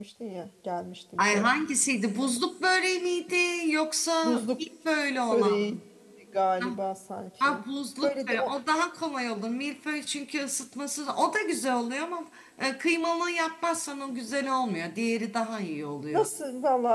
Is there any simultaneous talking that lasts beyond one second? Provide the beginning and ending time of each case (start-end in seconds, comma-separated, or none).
none